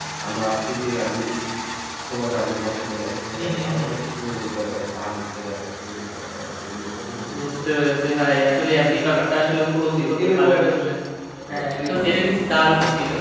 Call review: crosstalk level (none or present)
present